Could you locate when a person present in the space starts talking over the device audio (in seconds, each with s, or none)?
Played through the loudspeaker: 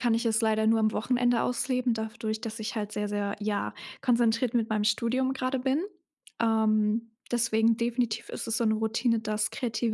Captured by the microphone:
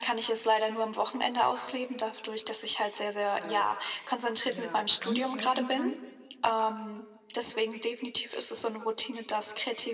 3.3 s